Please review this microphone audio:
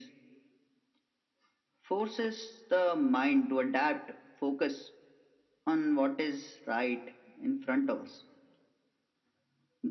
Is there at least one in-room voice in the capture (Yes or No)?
No